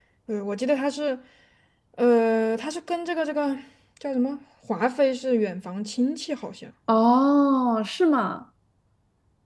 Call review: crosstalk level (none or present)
none